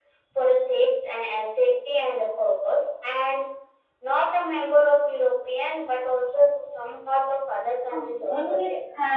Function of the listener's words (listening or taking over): taking over